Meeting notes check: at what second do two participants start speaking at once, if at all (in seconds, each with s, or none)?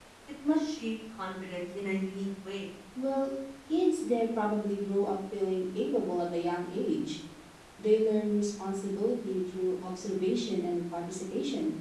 none